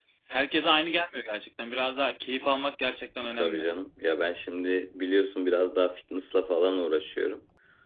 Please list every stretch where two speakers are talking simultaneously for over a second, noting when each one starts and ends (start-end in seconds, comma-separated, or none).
none